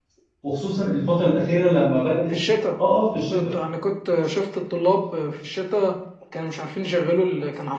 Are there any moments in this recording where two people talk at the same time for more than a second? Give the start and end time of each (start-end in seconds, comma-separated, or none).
none